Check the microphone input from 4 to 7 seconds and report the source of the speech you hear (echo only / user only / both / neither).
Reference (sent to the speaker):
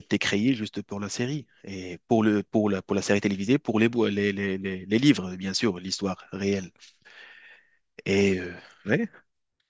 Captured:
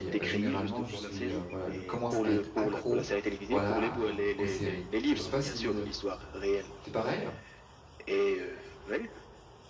both